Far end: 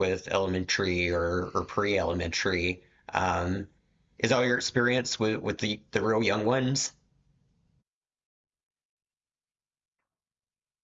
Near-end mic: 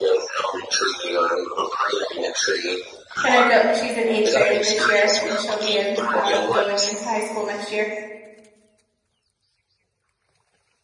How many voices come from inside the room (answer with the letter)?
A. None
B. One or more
B